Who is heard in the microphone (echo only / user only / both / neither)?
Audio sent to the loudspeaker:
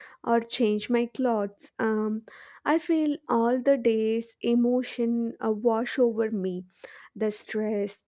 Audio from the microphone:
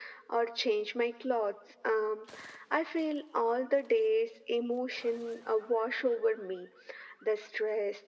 echo only